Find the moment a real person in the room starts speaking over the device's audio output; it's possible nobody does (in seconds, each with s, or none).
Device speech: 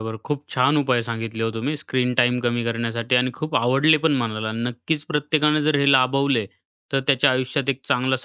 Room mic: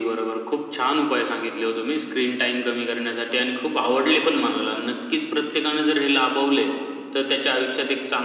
none